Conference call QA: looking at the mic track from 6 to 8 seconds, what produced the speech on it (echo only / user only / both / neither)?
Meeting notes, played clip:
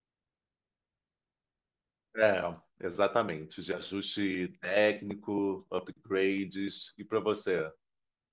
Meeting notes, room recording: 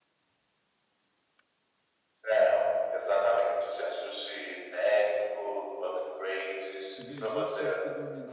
both